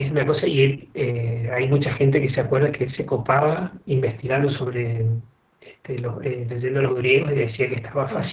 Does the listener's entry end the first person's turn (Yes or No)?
No